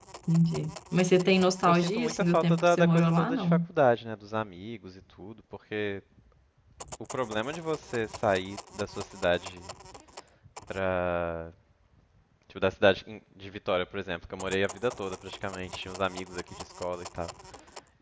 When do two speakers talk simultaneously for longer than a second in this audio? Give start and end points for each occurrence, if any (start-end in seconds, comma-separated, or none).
1.6-3.6